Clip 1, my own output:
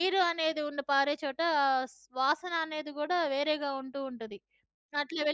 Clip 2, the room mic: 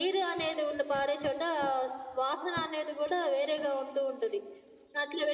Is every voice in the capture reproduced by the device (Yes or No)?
Yes